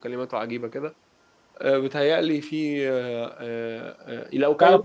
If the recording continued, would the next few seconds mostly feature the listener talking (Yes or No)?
No